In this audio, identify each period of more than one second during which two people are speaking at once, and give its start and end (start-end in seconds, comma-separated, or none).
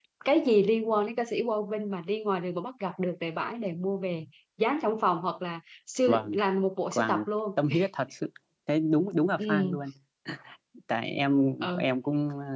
none